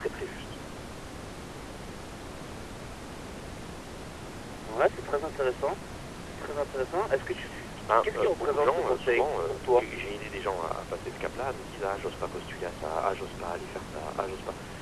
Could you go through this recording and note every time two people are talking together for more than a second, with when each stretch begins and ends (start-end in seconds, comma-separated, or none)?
8.0-9.8